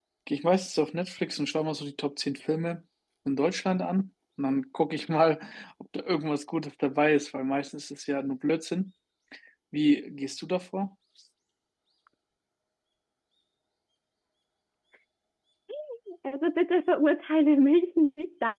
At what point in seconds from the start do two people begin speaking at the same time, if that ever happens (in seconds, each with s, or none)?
none